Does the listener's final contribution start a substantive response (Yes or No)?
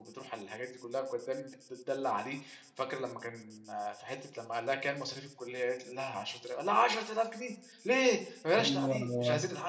Yes